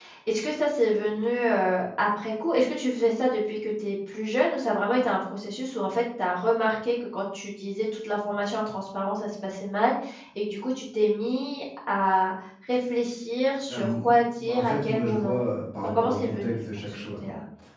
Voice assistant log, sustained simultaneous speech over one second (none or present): present